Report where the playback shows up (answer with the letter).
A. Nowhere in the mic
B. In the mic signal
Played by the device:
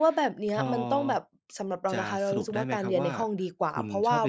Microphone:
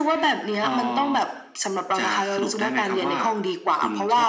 B